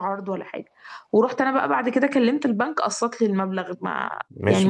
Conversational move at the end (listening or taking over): taking over